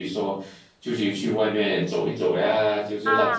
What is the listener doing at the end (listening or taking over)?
taking over